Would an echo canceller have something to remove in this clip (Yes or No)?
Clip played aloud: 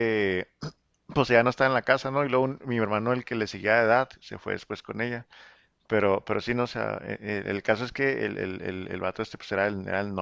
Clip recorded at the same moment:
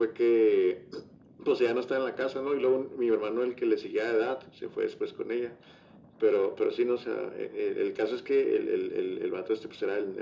Yes